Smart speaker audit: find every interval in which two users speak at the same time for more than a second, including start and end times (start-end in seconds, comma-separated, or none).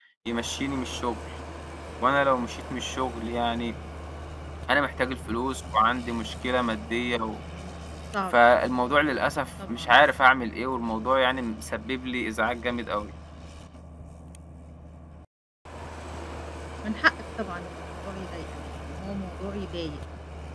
none